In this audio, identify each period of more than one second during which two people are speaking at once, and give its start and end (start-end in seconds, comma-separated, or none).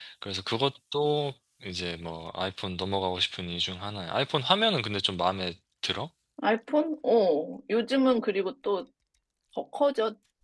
none